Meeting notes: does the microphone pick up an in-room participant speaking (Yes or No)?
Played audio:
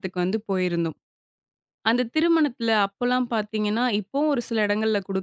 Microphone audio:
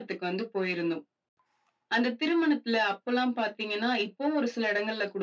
No